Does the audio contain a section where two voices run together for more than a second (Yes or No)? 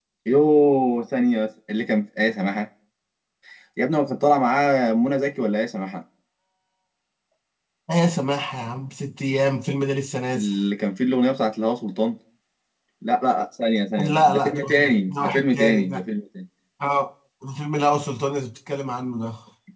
Yes